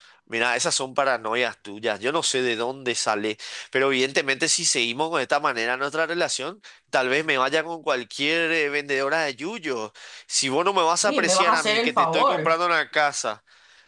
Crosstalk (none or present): present